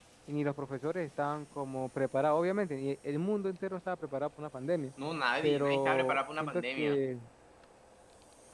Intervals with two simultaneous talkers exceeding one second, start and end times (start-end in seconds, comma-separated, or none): 5.4-7.0